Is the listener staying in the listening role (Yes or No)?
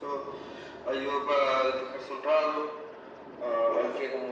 Yes